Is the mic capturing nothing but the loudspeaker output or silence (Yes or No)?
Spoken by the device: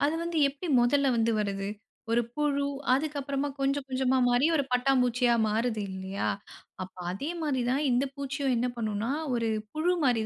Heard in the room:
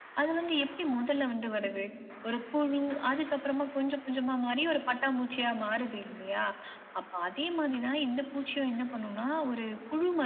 Yes